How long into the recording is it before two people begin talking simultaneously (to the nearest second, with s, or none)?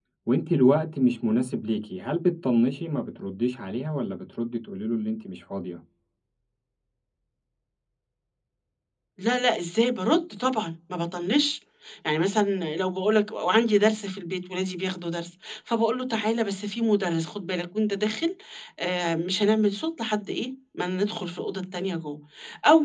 none